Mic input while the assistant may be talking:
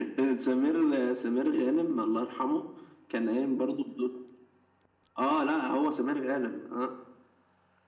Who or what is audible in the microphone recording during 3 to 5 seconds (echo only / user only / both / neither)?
echo only